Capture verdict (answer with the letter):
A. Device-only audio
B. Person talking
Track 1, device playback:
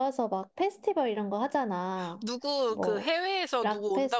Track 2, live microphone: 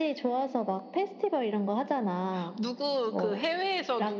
A